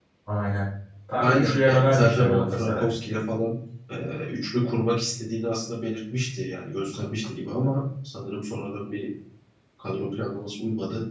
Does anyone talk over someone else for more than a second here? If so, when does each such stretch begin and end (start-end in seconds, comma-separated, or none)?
1.2-2.9